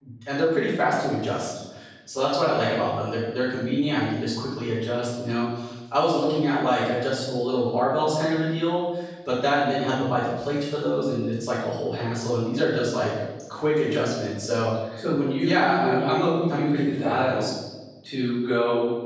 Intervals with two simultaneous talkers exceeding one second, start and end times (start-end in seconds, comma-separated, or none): 15.4-17.4